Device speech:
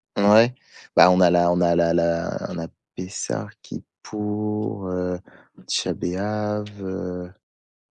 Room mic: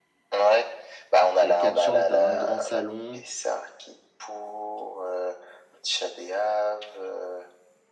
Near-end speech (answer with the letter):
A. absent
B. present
B